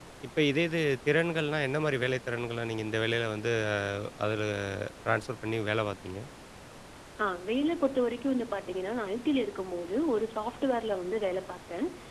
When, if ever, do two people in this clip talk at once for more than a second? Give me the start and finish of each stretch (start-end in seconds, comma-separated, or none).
none